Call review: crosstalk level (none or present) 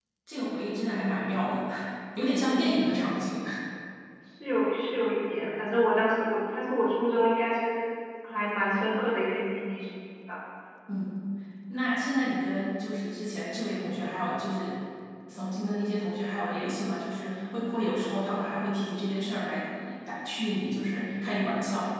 none